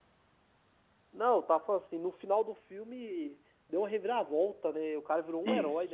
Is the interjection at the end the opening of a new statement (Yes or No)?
Yes